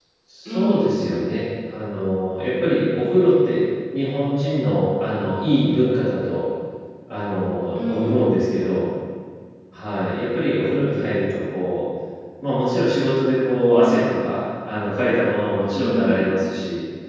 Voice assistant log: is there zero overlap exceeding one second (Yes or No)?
Yes